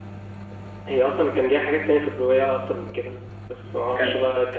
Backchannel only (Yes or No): Yes